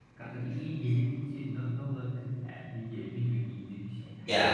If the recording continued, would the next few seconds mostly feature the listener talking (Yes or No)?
Yes